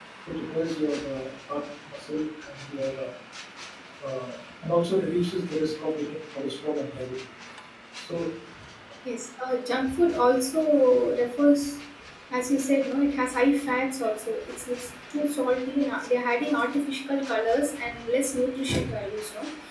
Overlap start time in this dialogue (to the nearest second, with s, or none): none